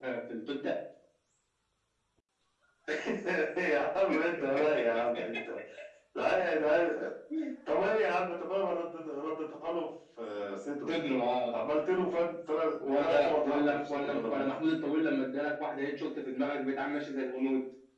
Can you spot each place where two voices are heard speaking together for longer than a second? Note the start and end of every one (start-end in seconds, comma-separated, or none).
13.0-14.7